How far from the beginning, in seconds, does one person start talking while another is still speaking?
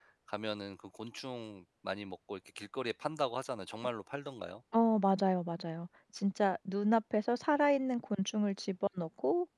none

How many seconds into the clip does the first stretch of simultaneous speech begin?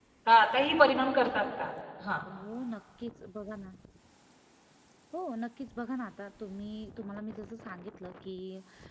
none

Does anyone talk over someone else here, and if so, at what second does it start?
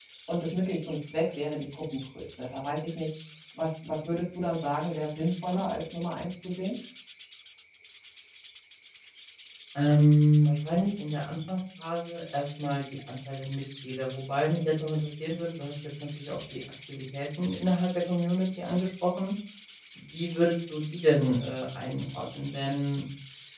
none

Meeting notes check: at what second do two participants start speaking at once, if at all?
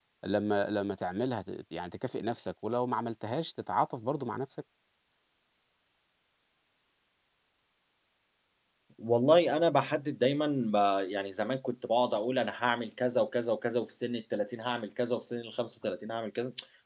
none

